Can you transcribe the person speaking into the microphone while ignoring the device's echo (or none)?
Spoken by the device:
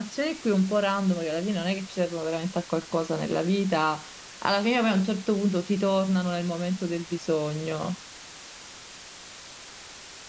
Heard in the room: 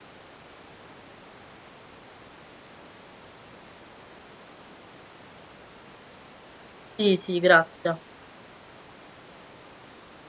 Sì, sì, grazie.